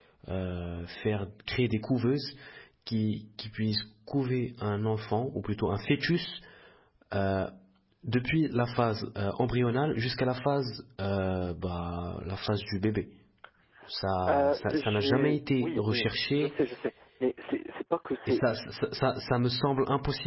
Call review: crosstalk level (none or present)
present